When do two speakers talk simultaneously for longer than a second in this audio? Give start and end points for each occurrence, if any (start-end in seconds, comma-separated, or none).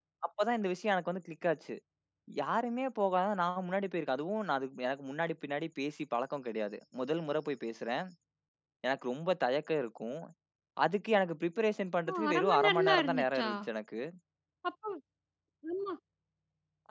12.1-13.5